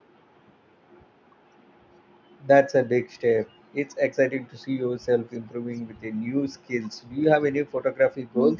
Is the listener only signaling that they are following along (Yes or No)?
No